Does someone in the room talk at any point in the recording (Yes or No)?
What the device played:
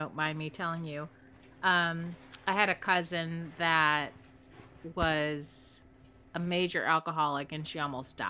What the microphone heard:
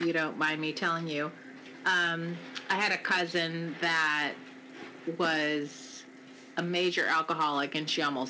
No